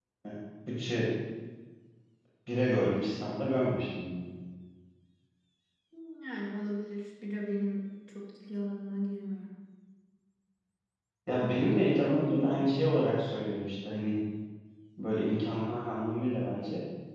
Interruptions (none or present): none